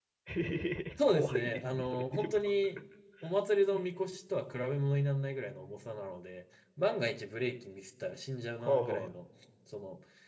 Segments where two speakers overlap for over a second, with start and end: 1.1-2.3

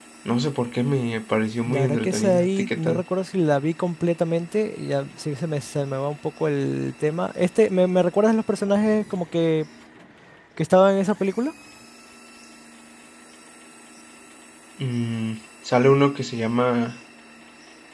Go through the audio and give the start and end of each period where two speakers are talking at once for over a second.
1.7-3.0

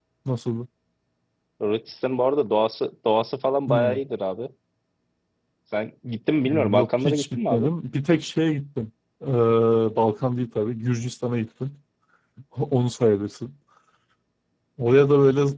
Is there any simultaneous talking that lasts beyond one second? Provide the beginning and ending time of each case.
6.4-7.7

